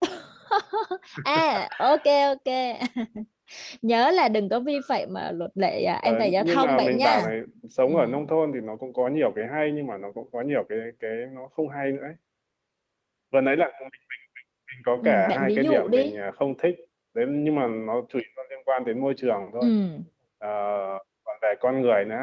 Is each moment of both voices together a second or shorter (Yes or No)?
No